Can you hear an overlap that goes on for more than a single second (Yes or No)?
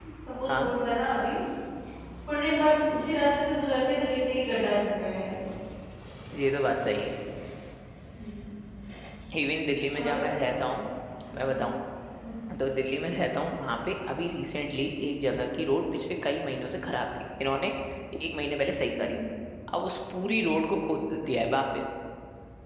No